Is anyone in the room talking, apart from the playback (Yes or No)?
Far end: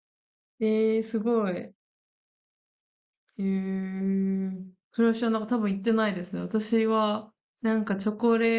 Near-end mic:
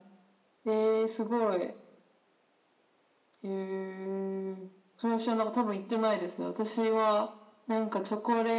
No